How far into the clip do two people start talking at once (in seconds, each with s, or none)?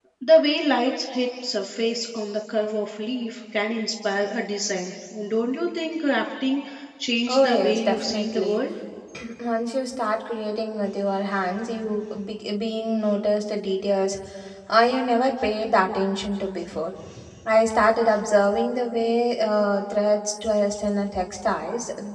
7.3 s